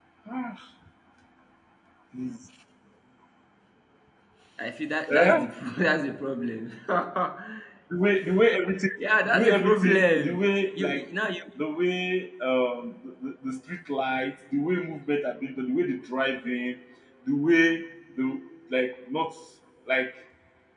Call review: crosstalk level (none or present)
present